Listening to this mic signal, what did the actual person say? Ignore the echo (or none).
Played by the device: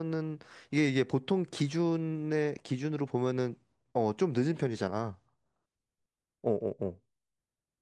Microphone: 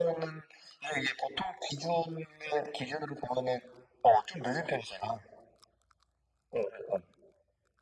none